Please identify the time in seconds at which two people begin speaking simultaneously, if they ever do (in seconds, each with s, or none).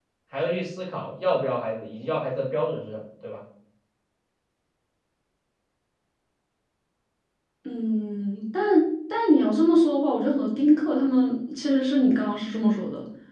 none